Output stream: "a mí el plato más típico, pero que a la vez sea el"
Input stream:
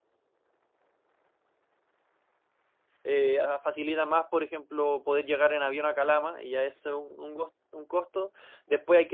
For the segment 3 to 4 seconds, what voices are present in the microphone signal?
user only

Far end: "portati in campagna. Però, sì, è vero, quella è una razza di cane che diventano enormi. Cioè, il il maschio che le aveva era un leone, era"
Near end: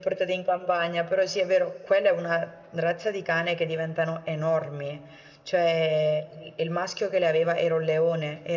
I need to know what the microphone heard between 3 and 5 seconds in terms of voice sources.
echo only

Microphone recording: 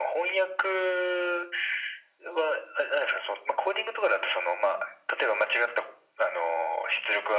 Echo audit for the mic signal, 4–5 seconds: echo only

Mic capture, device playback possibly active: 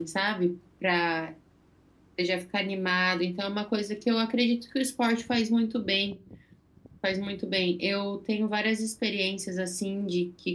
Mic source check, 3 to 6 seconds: user only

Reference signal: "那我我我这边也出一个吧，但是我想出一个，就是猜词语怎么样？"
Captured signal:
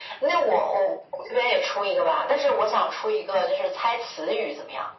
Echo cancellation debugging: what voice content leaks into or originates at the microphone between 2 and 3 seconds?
echo only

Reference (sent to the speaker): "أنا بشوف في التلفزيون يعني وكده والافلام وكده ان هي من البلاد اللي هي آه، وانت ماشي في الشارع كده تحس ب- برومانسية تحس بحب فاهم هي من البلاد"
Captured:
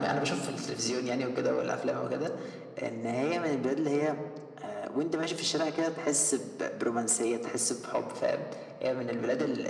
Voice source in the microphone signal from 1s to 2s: echo only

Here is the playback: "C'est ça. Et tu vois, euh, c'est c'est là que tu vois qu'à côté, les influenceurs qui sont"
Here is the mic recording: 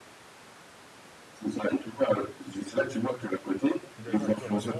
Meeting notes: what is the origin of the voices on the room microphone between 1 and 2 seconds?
echo only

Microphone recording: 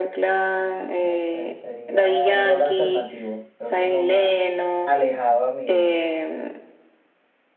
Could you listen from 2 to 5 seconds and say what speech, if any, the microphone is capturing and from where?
both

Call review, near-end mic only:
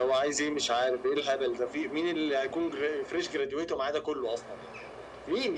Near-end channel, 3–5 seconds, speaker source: echo only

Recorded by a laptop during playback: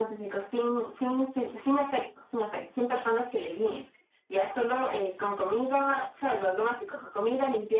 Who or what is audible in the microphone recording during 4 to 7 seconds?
echo only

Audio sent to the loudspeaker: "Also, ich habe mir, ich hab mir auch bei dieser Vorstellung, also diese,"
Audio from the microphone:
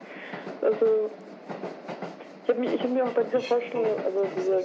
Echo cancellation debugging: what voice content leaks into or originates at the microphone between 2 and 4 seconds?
both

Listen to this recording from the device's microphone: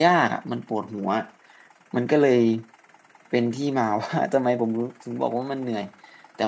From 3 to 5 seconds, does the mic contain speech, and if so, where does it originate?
user only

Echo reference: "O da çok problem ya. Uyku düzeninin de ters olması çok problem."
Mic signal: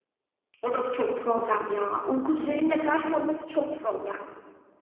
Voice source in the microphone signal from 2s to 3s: echo only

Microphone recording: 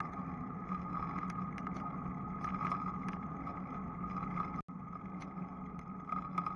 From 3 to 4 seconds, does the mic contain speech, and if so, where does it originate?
neither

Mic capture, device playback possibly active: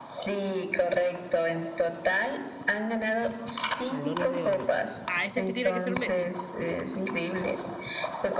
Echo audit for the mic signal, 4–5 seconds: both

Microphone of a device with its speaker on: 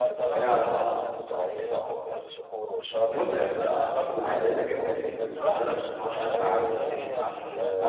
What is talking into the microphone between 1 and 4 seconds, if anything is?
both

